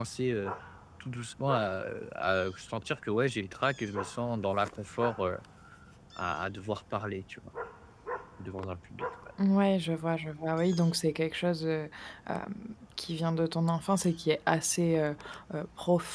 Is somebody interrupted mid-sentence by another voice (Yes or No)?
No